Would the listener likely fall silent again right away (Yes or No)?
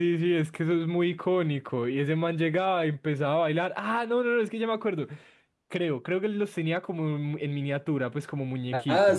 No